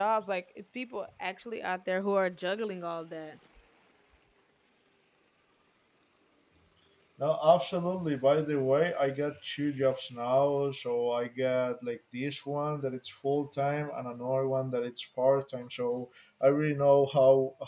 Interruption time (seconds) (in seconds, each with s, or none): none